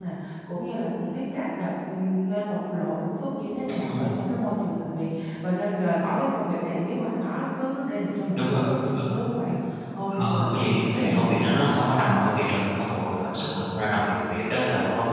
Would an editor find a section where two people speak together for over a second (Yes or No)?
Yes